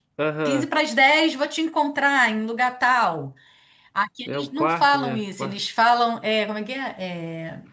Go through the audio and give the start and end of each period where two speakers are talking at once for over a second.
4.3-5.6

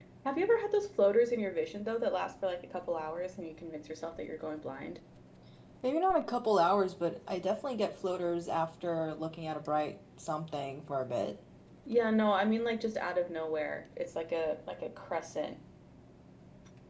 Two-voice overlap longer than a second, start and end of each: none

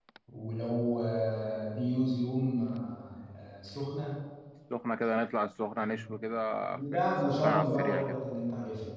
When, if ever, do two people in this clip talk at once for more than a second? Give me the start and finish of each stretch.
6.8-8.2

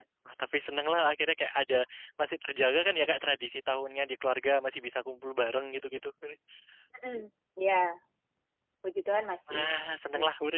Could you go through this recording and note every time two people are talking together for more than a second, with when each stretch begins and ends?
none

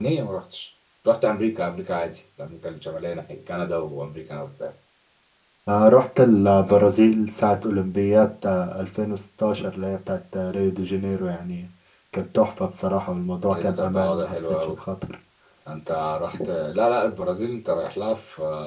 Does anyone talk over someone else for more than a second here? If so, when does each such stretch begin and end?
13.5-14.8

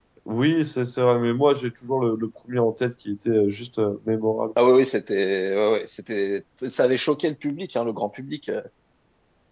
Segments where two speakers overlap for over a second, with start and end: none

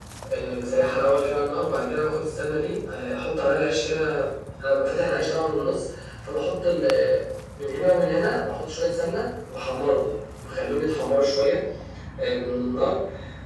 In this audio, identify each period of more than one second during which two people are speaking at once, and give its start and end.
none

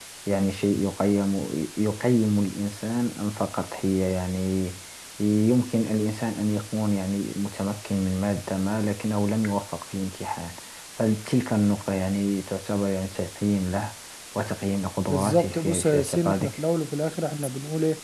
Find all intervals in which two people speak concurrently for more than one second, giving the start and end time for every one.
15.1-16.6

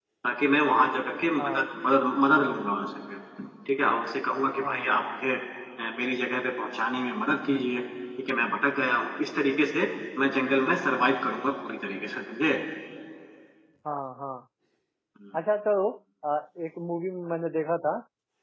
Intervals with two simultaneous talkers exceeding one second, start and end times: none

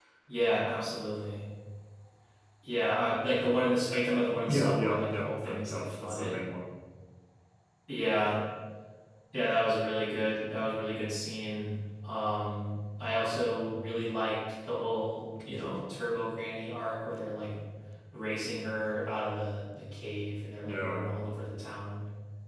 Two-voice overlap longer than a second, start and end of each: 4.5-6.4

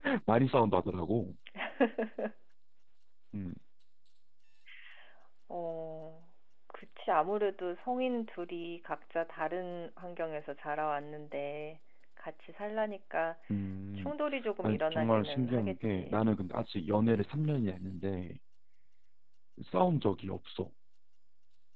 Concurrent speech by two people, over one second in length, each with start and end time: 14.6-16.2

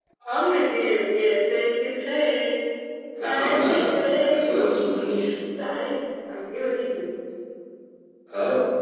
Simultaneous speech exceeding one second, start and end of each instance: 3.2-5.0

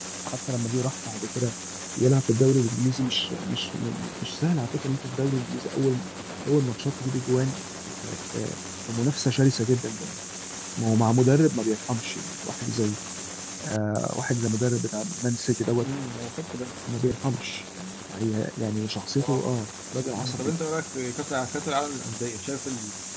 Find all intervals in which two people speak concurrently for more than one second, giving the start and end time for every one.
none

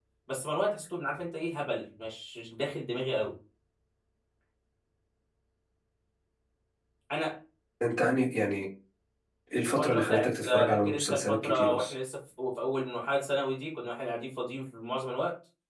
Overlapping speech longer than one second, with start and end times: 9.6-11.9

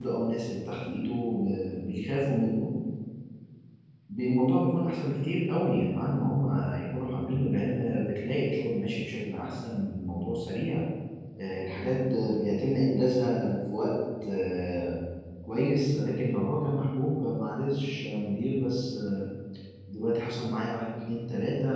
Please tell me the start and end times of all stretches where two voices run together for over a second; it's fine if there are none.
none

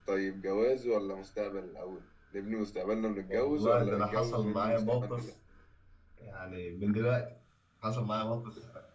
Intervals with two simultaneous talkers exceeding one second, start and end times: 3.3-5.3

